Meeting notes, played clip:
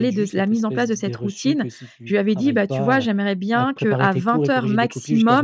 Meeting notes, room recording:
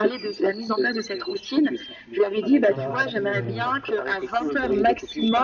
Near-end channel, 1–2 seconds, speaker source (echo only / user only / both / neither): echo only